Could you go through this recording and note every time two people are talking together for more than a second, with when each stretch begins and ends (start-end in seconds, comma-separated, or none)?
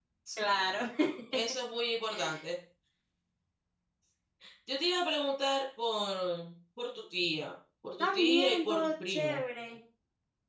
8.0-9.4